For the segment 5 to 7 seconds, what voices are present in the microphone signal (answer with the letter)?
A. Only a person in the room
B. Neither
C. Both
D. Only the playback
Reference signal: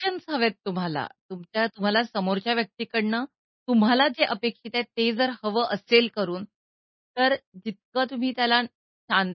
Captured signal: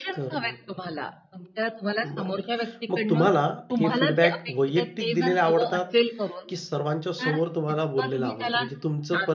C